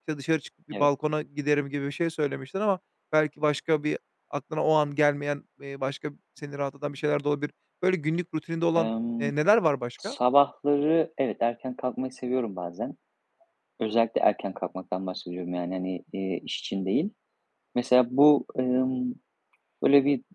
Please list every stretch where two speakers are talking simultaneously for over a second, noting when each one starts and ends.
none

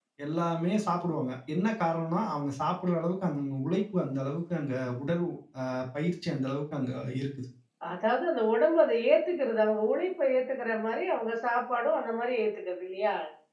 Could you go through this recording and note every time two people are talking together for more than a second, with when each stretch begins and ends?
none

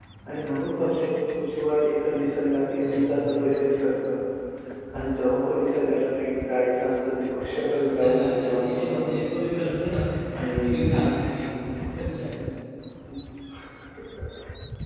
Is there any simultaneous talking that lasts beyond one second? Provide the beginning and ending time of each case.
7.6-9.0

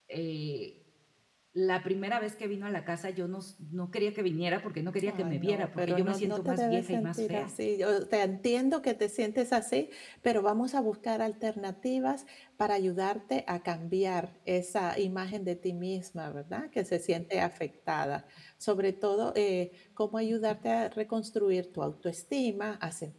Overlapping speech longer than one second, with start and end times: 5.1-7.5

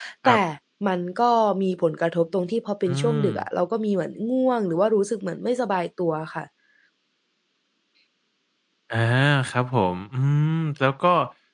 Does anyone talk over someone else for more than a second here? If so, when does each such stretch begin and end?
none

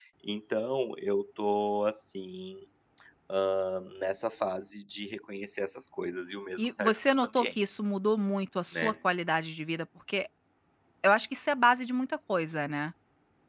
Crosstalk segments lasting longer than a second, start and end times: 6.6-7.8

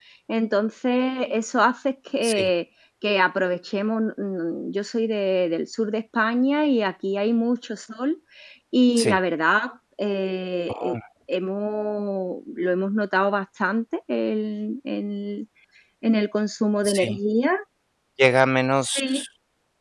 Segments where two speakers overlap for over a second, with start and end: none

